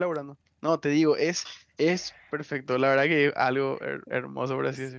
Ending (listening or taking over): taking over